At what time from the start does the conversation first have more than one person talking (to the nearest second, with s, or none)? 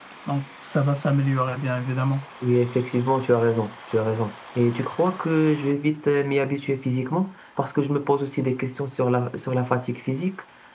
none